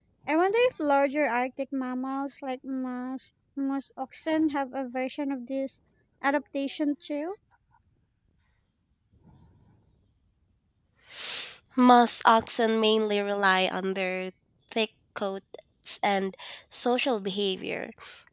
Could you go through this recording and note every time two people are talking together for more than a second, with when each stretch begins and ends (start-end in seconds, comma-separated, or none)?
none